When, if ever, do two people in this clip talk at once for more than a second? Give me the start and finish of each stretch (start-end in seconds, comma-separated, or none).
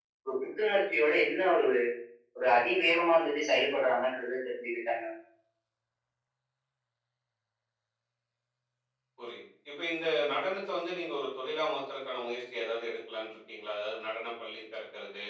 none